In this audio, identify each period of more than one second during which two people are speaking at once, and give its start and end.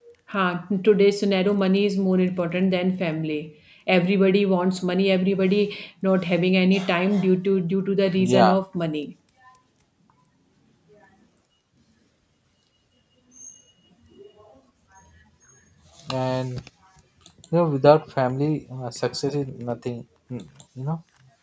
none

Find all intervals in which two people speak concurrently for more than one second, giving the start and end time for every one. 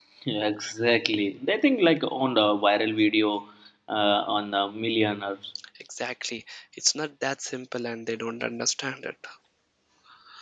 none

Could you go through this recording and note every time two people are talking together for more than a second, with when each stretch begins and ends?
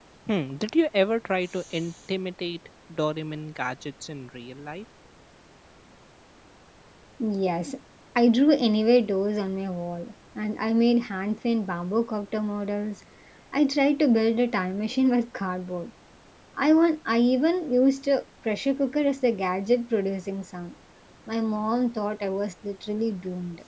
none

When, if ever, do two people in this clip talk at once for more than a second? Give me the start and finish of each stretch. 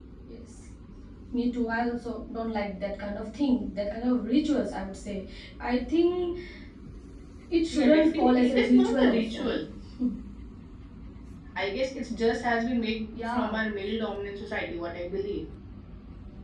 7.7-9.5

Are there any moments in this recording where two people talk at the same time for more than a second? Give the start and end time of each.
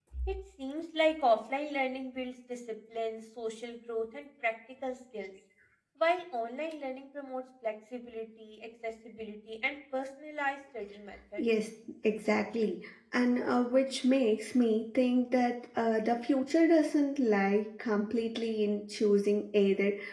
none

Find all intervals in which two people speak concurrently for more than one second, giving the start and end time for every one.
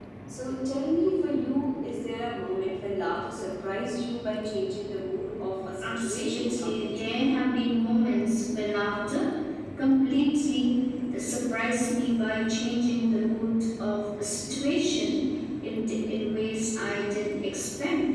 5.8-7.3

